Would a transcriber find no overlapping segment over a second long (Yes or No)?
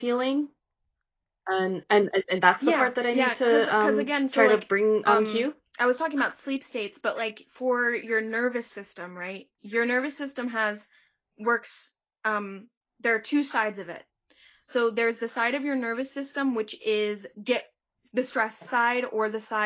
No